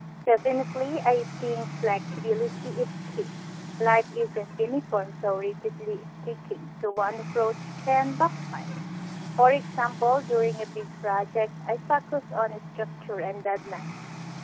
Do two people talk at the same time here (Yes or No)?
No